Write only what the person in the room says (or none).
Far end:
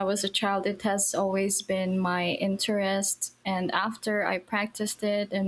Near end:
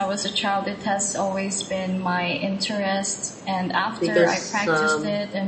because um,